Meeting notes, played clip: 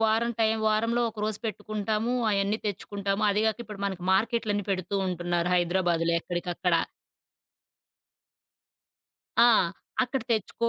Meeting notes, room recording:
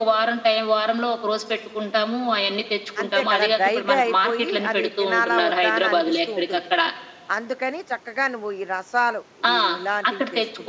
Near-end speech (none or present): present